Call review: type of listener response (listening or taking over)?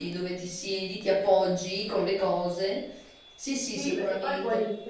taking over